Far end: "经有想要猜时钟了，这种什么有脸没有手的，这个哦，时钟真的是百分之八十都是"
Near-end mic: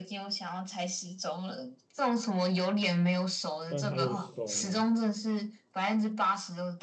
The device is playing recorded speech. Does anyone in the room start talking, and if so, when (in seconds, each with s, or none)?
3.6 s